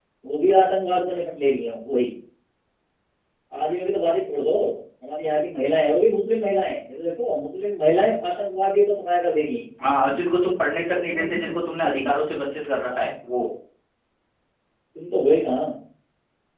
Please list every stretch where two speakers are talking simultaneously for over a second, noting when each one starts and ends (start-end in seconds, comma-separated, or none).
none